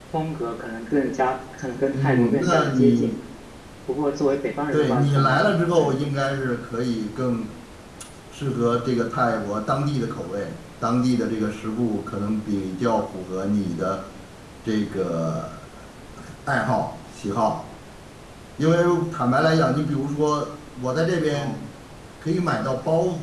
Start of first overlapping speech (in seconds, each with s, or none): 1.9 s